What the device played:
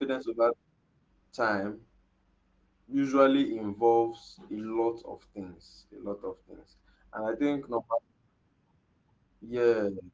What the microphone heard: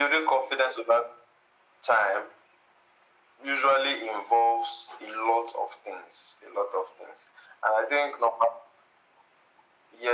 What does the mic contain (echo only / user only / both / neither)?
echo only